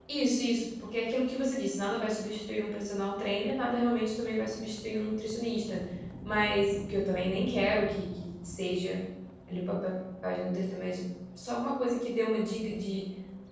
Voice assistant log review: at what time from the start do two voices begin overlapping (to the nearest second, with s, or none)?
none